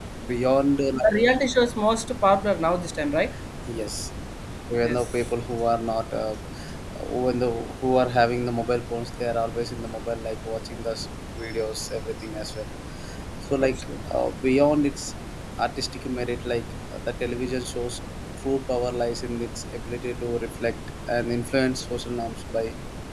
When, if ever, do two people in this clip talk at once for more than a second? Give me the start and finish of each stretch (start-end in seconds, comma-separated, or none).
none